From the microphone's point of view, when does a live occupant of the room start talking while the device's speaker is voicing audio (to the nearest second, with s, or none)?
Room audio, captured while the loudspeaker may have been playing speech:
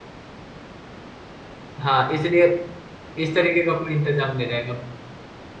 2 s